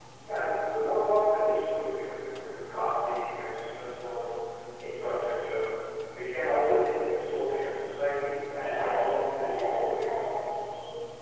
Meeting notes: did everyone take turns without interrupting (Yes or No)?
No